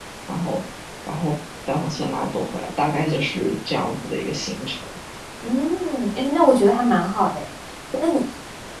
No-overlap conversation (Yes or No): Yes